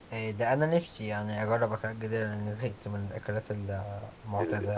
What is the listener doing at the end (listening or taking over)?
taking over